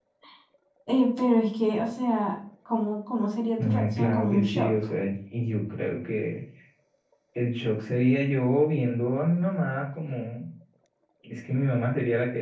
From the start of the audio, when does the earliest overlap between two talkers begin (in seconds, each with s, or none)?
3.6 s